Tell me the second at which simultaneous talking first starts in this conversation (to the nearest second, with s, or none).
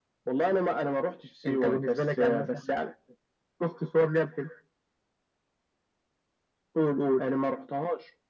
1 s